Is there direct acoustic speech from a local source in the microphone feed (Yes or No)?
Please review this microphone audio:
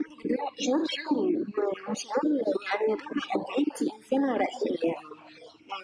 No